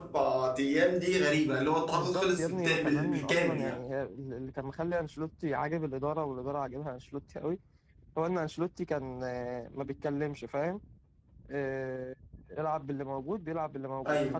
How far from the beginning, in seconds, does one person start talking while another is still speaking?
2 s

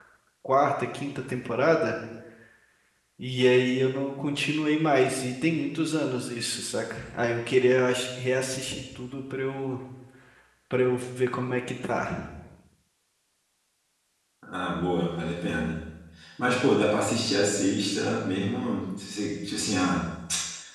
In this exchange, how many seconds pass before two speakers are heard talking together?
none

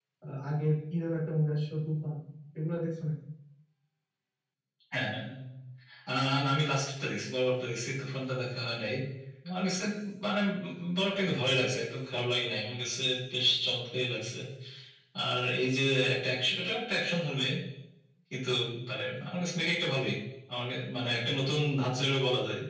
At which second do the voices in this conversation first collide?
none

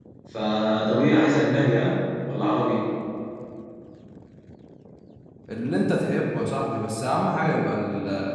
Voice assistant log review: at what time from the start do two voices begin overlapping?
none

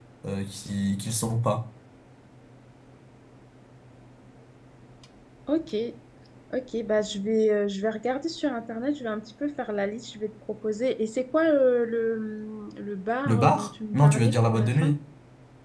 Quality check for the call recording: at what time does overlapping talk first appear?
13 s

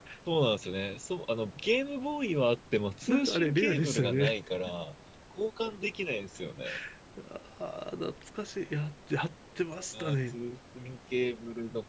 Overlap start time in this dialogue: 3 s

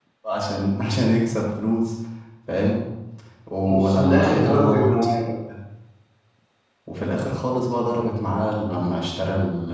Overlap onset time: 4 s

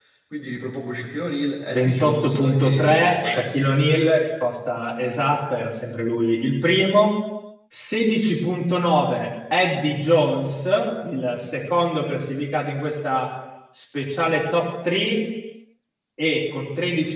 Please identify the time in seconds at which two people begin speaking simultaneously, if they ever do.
2 s

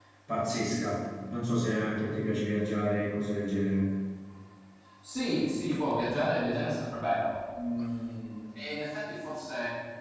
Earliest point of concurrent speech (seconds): none

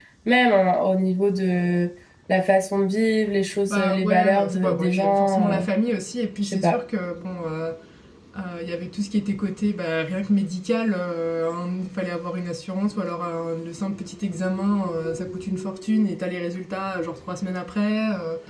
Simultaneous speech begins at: 4 s

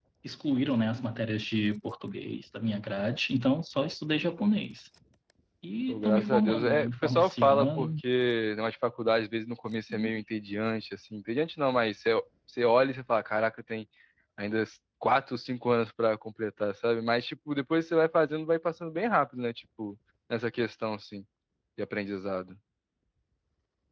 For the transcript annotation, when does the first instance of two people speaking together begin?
6 s

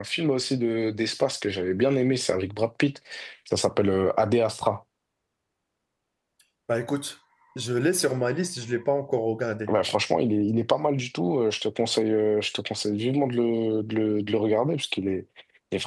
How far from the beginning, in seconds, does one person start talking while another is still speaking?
none

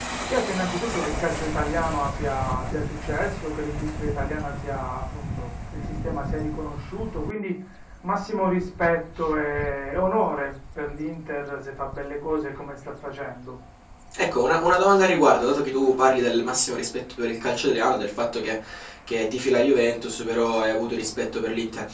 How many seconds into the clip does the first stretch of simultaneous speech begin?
none

